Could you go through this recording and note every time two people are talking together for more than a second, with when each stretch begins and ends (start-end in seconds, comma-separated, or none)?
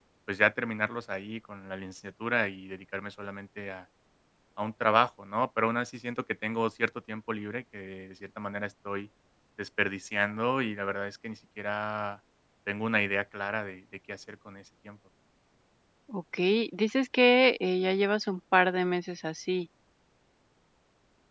none